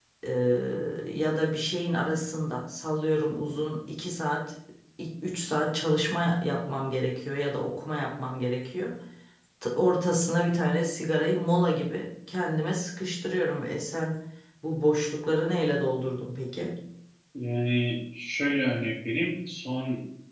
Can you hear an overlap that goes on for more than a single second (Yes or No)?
No